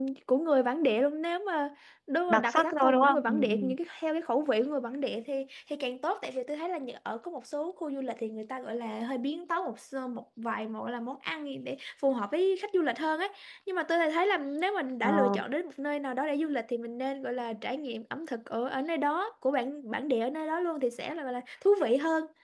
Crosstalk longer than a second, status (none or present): present